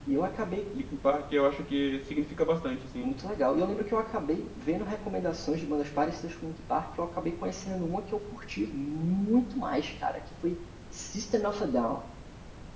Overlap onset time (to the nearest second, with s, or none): none